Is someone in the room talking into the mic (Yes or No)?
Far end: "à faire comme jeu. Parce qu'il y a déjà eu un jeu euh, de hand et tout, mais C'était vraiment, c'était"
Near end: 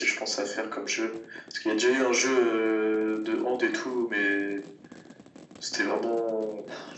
No